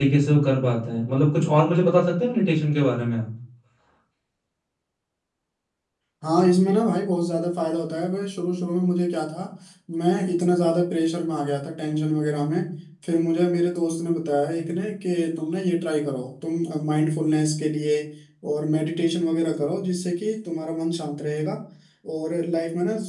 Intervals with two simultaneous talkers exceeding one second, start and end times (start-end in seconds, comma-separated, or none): none